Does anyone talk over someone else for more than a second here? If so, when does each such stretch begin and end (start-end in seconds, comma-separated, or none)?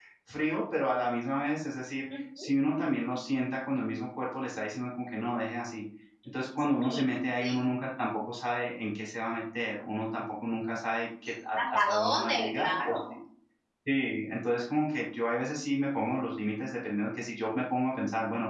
11.6-13.1